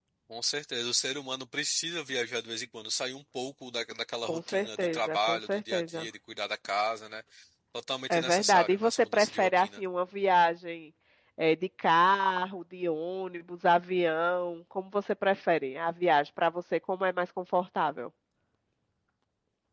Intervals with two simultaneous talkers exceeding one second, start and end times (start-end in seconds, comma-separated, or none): 4.2-6.1, 8.1-9.8